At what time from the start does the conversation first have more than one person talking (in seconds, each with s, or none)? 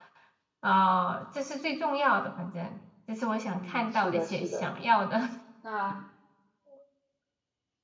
3.5 s